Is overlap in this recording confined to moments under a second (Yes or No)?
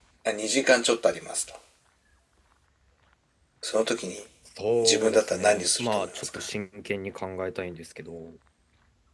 No